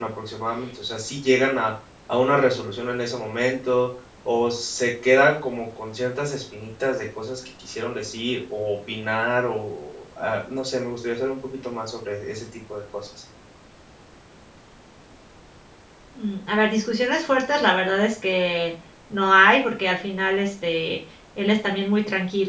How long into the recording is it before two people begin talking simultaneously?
none

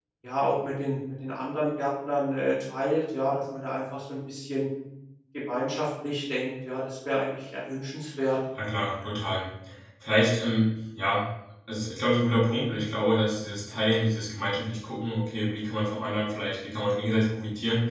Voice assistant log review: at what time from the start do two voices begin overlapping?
none

